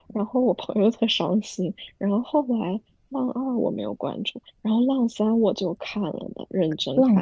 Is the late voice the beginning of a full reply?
Yes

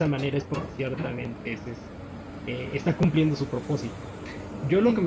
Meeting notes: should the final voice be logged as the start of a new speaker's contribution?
No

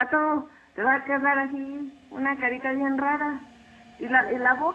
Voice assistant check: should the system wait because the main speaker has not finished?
Yes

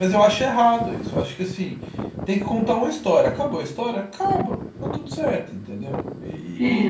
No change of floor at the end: Yes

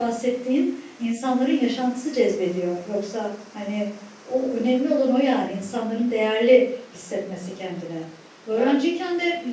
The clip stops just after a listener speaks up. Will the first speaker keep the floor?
Yes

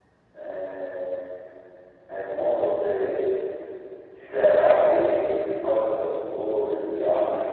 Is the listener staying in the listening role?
No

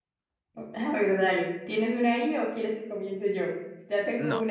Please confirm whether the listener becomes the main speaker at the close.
Yes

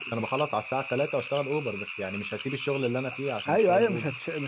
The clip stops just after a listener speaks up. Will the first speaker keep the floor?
No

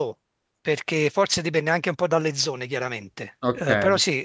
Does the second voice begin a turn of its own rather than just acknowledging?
No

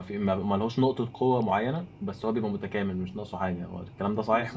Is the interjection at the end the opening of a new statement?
Yes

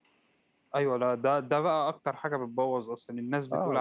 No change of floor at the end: No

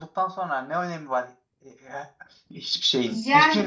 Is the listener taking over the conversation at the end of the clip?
Yes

